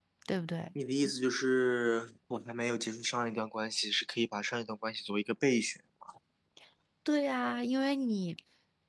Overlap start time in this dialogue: none

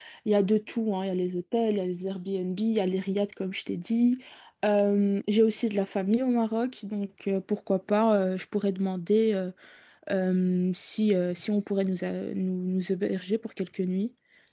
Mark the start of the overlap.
none

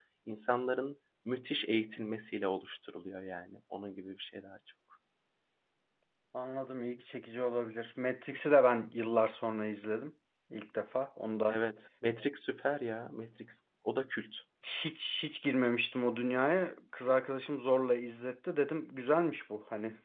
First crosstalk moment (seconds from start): none

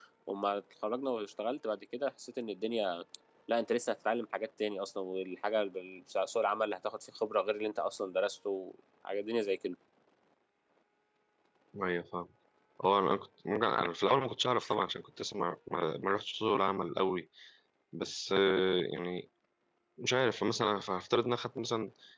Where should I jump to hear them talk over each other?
none

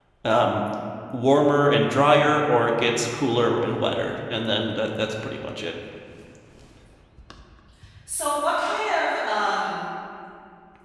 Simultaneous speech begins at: none

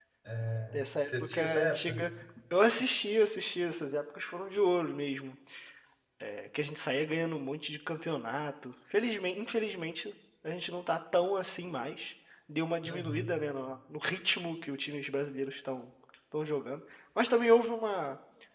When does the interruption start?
1 s

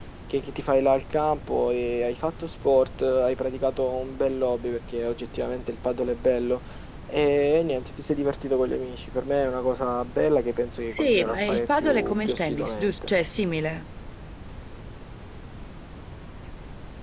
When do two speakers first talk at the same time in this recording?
11 s

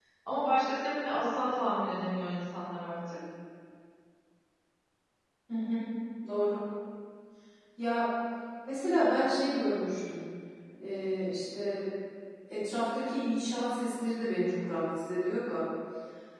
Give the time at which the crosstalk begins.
none

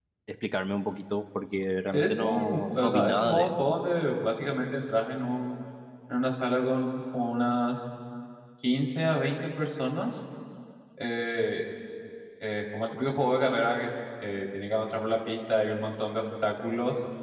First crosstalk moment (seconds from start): 2 s

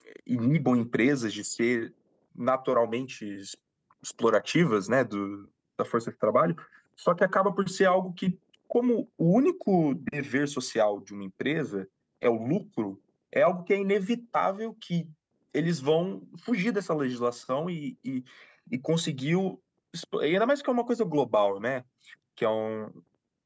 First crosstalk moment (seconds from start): none

